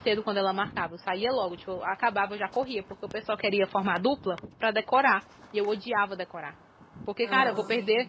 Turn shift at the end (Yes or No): No